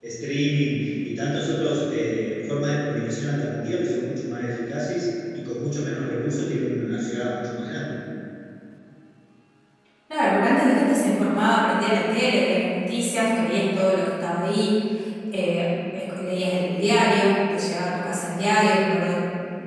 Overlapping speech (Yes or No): No